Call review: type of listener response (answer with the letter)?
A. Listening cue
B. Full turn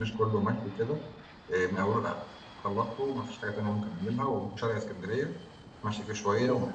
A